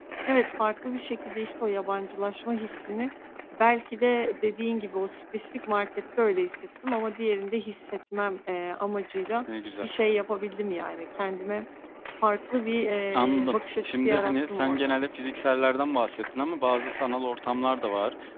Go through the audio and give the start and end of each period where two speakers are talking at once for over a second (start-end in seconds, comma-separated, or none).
13.1-15.0